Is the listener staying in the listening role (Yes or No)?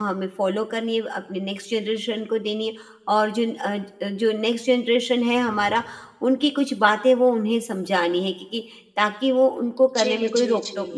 No